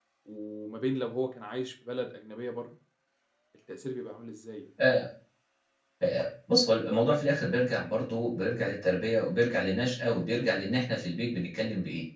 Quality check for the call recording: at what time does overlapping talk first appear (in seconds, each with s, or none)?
none